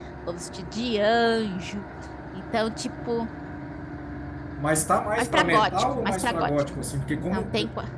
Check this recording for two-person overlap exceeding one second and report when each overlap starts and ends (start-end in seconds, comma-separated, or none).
5.2-6.5